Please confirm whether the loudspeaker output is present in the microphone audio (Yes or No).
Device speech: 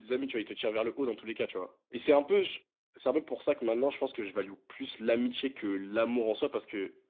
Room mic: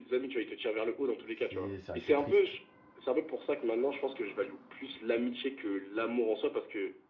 Yes